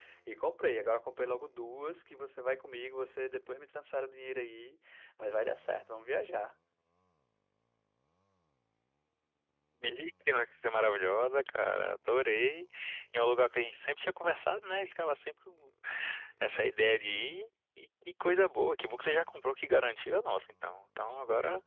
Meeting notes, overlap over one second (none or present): none